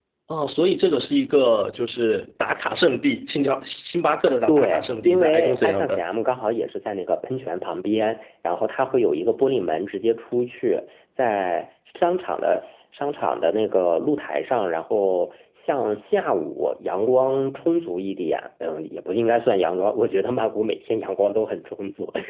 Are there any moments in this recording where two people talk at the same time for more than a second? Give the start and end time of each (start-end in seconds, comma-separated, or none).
4.5-6.0